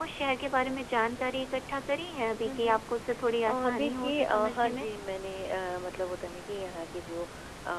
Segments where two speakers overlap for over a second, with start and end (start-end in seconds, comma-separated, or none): 3.5-4.9